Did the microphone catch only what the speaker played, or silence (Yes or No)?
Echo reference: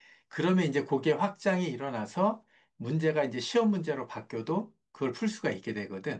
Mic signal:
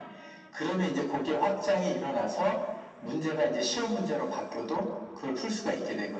Yes